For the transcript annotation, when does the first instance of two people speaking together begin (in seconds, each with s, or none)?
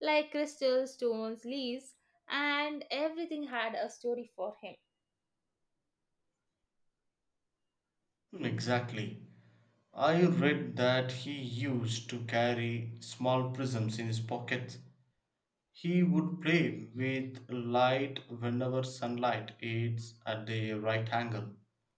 none